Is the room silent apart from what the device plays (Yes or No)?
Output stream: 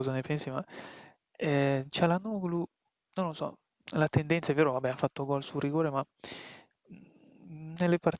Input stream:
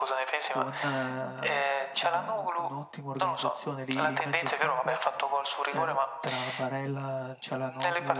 No